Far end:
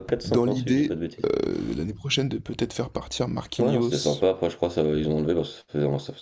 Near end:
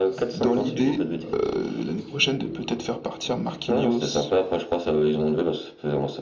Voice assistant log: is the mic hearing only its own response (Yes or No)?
No